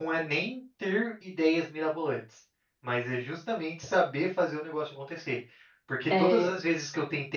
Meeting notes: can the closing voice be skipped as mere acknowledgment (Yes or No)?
Yes